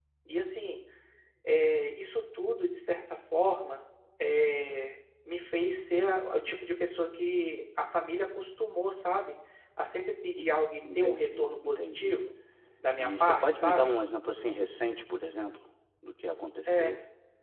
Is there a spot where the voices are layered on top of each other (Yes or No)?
Yes